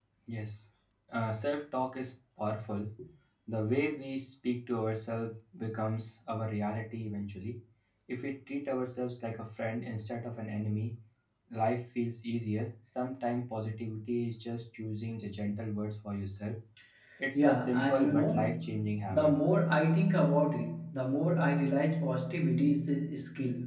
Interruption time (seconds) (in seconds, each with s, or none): 17.3 s